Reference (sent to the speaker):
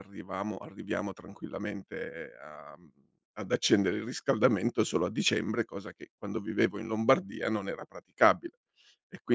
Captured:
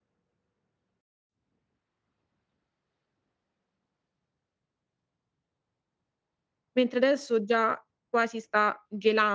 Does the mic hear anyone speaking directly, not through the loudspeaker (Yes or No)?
Yes